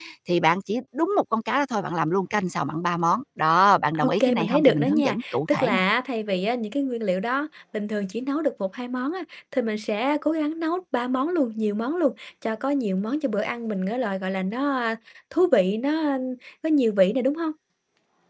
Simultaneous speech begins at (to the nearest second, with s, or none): 4 s